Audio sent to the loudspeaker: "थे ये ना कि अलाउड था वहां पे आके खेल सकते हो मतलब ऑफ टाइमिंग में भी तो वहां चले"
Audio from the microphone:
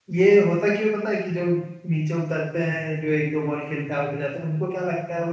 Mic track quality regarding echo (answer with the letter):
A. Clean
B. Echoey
A